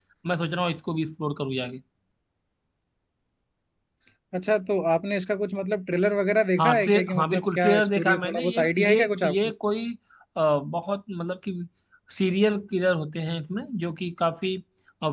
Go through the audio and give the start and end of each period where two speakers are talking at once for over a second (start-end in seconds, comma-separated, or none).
6.6-9.4